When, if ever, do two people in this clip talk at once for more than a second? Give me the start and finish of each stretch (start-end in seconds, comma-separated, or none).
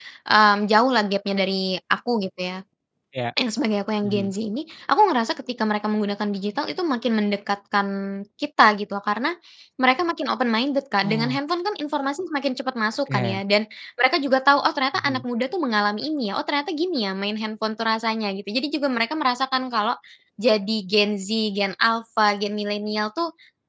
none